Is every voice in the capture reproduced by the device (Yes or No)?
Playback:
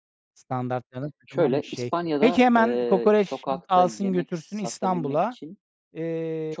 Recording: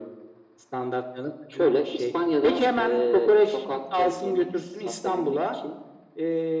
Yes